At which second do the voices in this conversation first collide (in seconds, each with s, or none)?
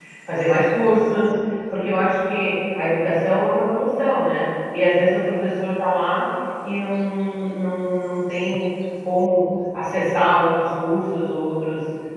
none